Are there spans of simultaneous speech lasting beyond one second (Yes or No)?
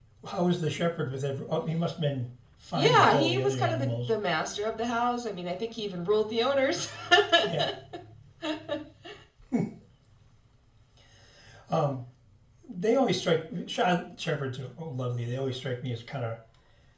Yes